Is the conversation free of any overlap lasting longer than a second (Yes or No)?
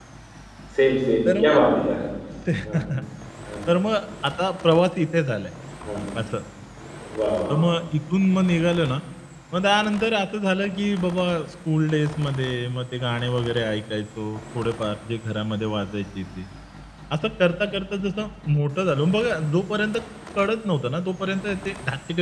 Yes